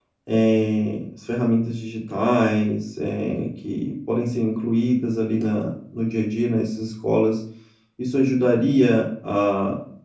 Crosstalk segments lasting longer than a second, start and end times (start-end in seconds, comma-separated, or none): none